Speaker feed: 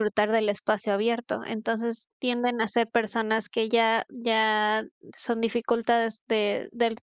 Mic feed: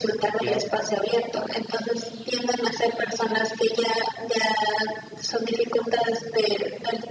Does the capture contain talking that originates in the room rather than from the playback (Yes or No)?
Yes